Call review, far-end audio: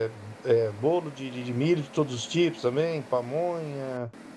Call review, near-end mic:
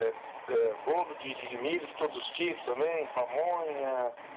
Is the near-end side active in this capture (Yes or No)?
No